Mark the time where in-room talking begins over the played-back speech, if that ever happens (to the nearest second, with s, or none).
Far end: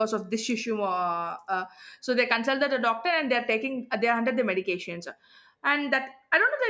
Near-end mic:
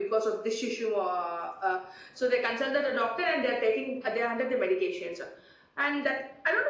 none